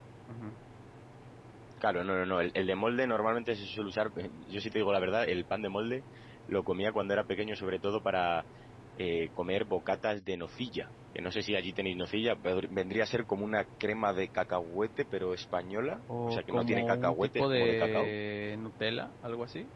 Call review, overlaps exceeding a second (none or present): present